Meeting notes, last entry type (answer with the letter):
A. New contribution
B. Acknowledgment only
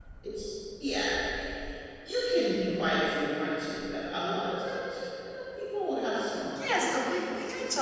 A